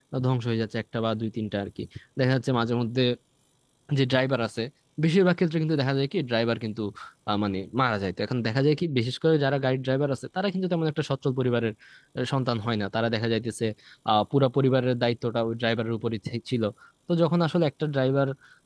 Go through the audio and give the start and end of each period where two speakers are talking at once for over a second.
none

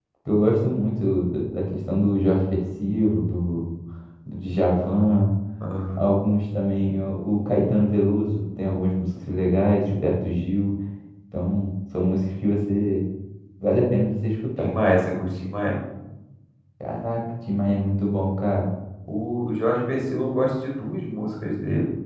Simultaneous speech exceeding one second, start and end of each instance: none

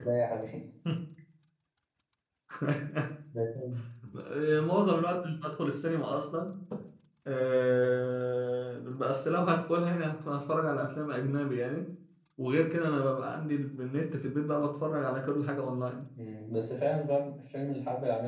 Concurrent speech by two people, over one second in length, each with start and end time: none

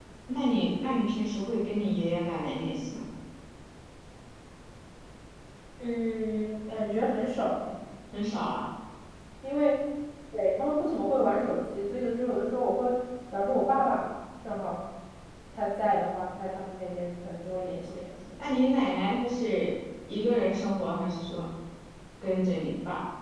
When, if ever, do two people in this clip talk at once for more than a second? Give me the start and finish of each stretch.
none

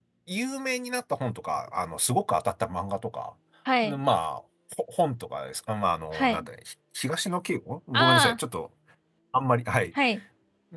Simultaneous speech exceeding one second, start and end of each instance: none

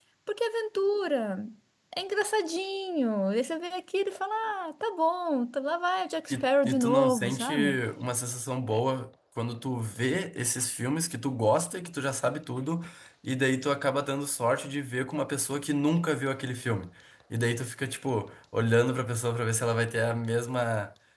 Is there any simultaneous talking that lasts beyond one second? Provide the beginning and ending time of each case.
6.3-7.5

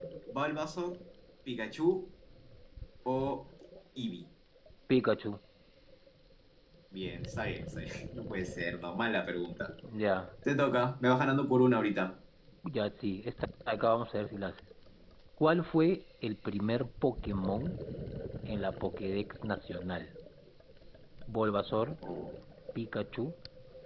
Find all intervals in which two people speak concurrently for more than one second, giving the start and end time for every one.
none

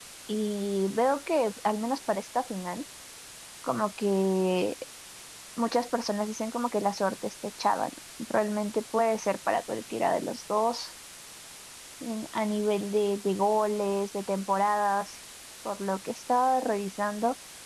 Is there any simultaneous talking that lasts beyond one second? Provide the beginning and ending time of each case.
none

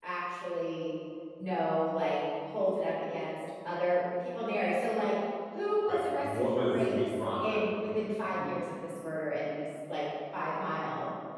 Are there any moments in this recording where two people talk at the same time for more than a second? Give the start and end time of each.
5.9-7.6

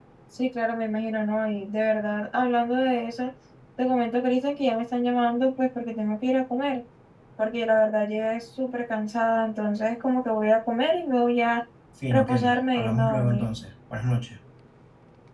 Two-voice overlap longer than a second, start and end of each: 12.1-13.5

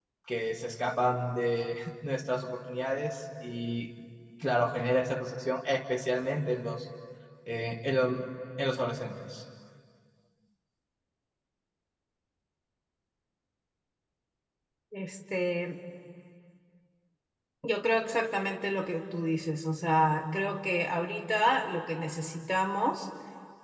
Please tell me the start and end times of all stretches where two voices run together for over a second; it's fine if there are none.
none

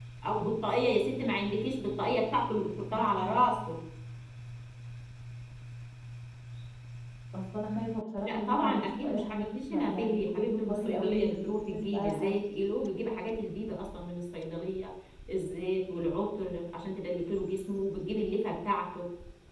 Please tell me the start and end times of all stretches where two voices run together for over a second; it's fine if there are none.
8.2-12.4

